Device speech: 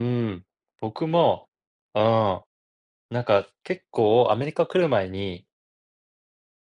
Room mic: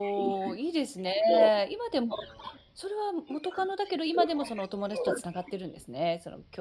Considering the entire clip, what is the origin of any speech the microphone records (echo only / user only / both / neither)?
both